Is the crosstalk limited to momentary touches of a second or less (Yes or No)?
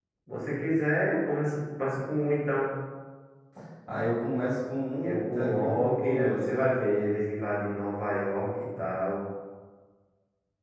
No